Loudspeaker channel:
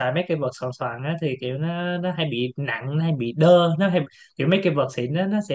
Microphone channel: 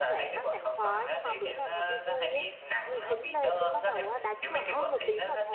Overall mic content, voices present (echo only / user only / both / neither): both